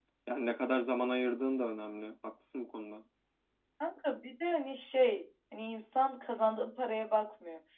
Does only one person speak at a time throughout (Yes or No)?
Yes